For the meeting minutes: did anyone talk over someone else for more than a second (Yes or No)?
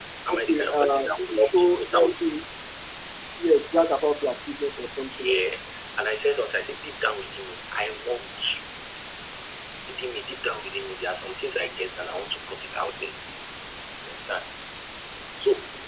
Yes